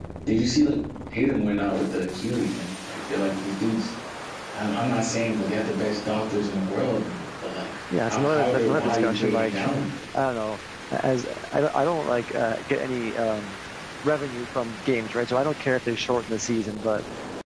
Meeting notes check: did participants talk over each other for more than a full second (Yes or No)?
Yes